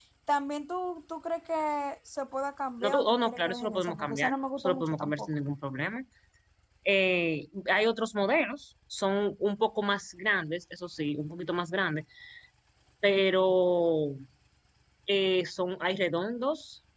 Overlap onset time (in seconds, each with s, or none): 2.8 s